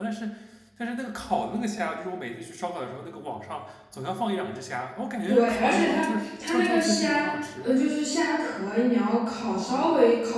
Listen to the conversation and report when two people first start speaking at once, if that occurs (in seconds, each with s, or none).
5.3 s